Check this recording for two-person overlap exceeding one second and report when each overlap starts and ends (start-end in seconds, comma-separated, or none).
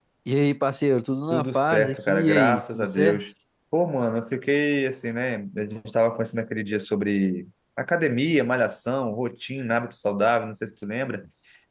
1.3-3.2